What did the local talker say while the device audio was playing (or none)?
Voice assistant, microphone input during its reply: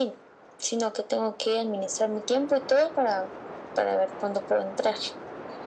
none